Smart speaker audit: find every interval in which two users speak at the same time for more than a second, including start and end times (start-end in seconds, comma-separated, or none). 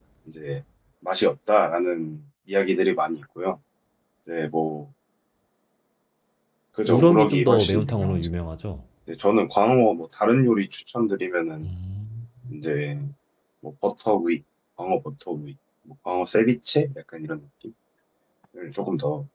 6.9-8.3